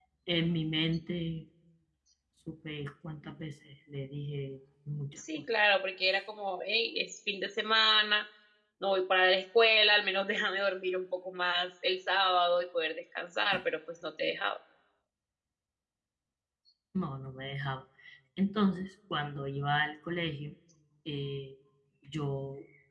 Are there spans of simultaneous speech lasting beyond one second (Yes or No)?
No